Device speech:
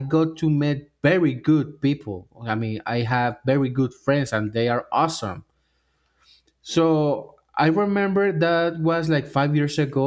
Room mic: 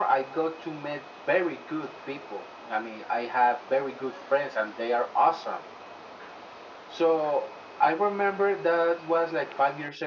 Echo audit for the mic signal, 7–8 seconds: echo only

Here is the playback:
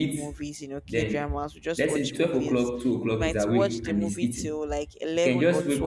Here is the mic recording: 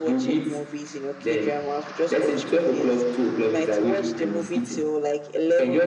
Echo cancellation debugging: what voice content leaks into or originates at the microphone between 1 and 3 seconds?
echo only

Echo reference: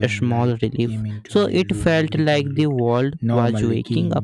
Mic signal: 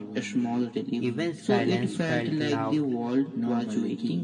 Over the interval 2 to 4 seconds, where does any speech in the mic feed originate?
both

